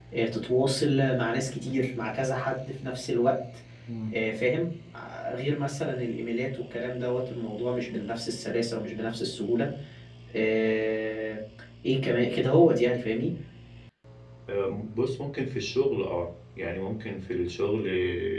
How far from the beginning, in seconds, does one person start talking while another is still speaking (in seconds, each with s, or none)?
none